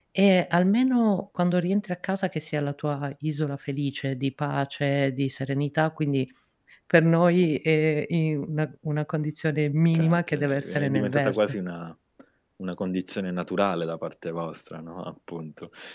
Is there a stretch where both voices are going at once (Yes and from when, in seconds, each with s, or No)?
Yes, from 9.9 s